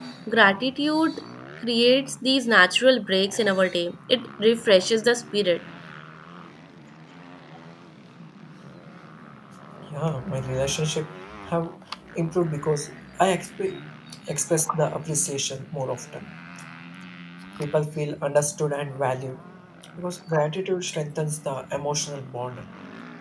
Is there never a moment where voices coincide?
Yes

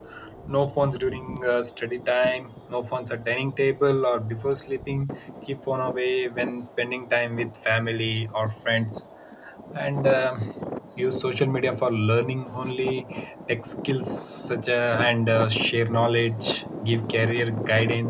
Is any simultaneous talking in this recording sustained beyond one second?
No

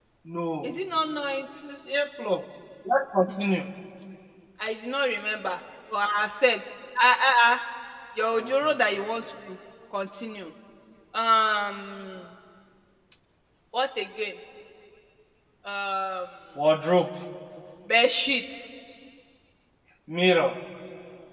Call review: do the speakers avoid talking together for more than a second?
Yes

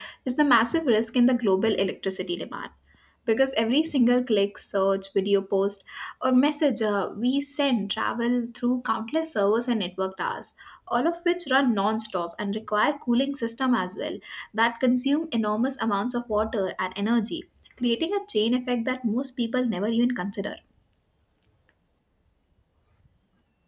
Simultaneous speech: No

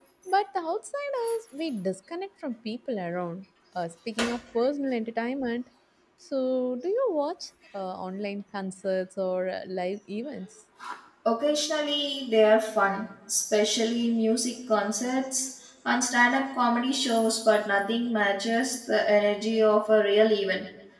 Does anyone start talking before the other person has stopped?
No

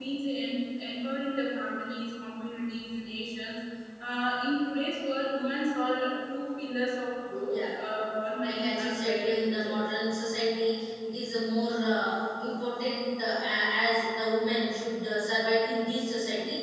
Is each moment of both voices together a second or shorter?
No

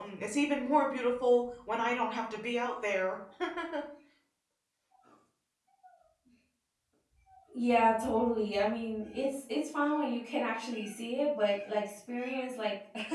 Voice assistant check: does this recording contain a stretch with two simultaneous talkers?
No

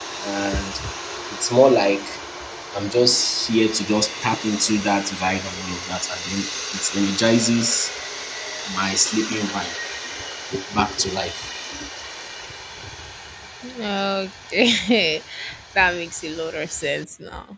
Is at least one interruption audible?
No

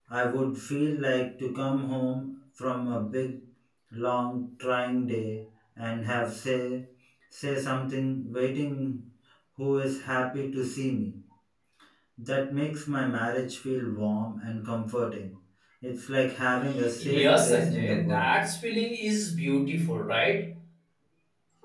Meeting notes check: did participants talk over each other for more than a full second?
Yes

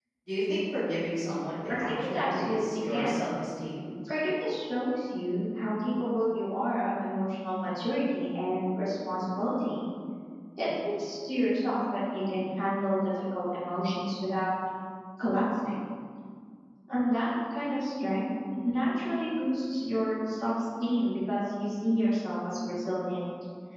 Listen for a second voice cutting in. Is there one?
Yes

